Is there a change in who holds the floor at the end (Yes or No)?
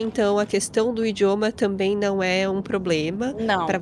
No